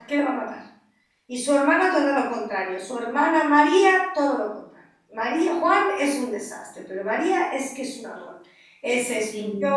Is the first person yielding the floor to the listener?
No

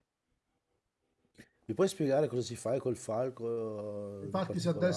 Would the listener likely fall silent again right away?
No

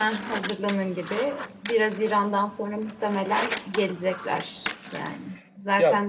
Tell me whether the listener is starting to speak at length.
No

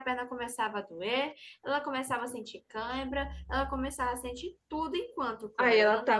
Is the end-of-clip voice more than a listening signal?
Yes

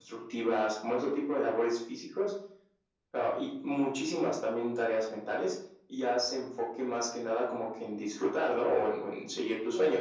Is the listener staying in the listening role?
No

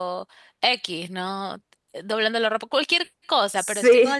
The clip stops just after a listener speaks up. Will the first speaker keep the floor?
Yes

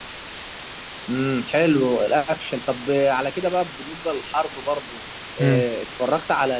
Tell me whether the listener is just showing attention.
Yes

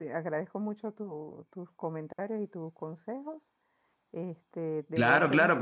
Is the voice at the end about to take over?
Yes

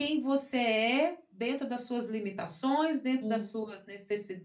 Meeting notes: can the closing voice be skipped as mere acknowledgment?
Yes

